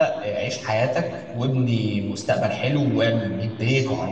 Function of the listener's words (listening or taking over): listening